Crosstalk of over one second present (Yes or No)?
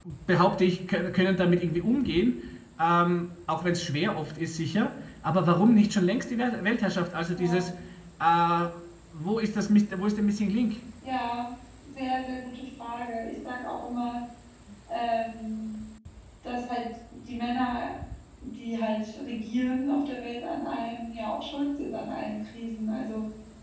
No